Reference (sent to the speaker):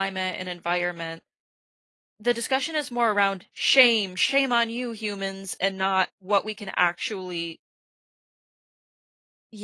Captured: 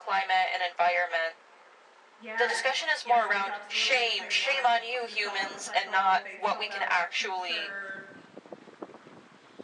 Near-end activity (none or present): present